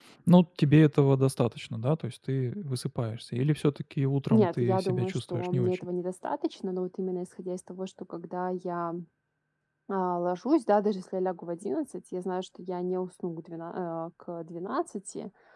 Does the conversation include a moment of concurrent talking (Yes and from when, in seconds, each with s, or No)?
Yes, from 4.3 s